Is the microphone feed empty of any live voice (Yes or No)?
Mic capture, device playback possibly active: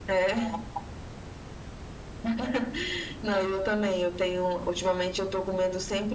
Yes